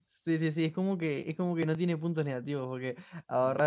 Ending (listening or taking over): listening